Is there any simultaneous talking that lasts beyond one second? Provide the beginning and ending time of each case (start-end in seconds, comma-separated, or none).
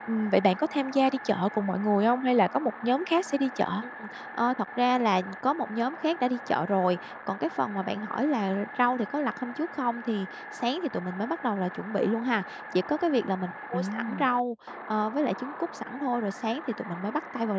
none